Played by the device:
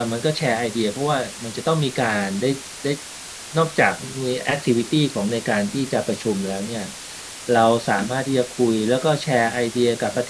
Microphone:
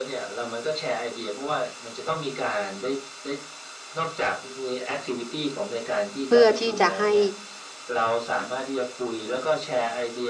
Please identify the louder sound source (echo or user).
user